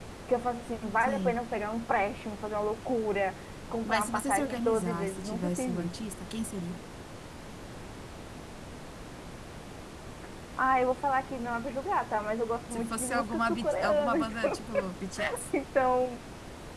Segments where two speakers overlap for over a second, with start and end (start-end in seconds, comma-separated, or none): 3.9-5.9, 12.7-14.6